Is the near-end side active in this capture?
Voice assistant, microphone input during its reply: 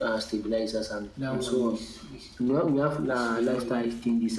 Yes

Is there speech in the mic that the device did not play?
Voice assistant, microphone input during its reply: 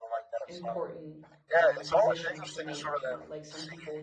Yes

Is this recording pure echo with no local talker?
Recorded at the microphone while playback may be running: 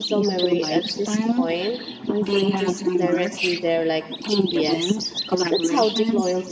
No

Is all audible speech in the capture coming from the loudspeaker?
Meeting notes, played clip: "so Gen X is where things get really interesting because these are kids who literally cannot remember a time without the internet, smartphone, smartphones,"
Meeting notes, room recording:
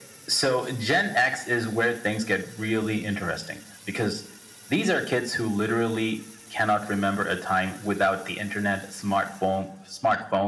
Yes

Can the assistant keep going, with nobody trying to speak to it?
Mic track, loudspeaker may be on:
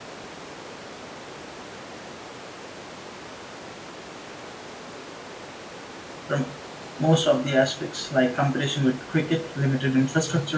No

